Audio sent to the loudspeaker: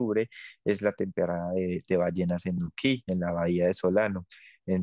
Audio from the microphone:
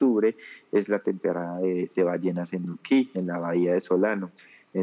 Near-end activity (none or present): none